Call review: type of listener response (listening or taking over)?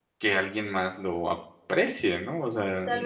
taking over